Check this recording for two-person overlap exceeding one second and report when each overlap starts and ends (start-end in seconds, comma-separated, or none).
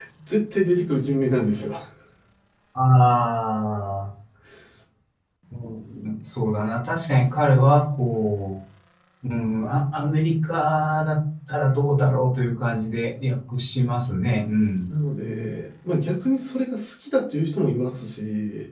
none